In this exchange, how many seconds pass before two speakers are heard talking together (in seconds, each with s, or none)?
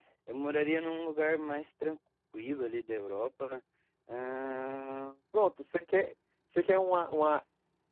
none